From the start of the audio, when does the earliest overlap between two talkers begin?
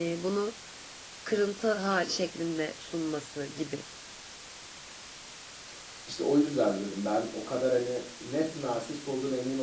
none

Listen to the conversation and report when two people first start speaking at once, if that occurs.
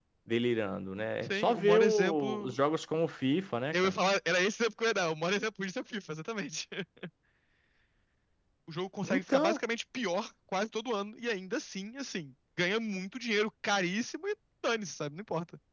1.2 s

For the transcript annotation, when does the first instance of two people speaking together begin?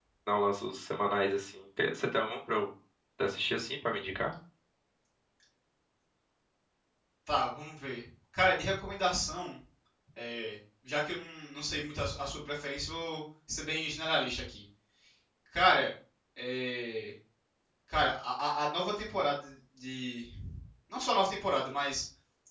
none

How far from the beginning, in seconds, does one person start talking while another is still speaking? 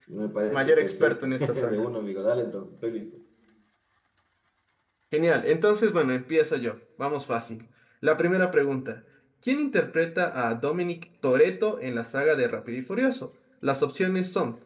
0.5 s

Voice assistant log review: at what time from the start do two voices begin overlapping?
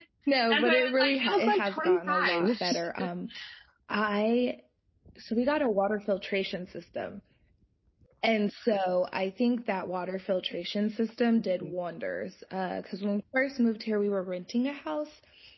0.5 s

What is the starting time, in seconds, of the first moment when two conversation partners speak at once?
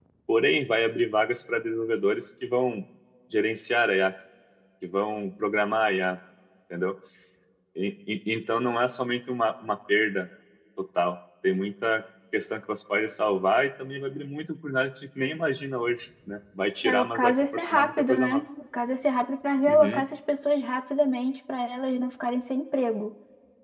16.8 s

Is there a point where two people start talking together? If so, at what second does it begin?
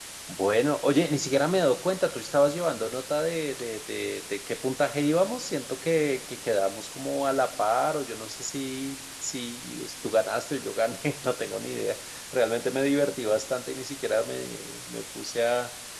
none

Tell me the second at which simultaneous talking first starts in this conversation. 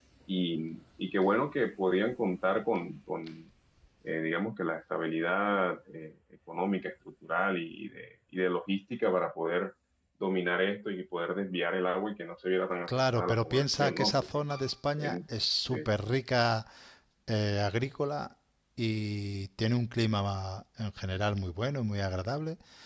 12.9 s

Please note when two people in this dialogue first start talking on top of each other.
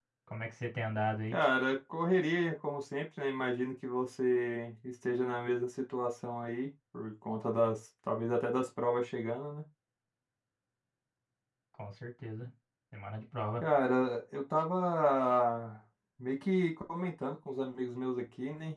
none

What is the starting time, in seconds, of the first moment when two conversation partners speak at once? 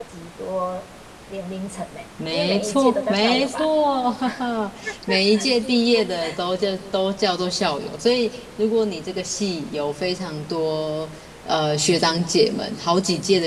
2.3 s

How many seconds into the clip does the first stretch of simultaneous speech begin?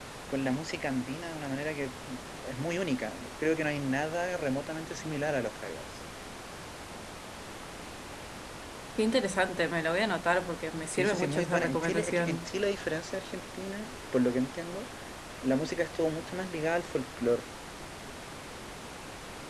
10.9 s

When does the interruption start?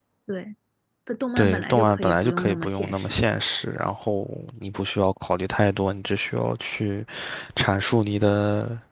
1.4 s

